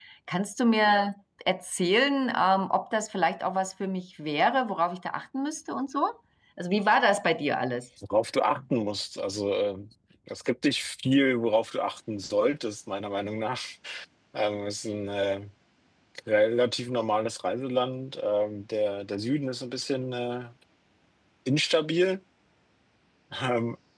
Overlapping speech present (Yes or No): No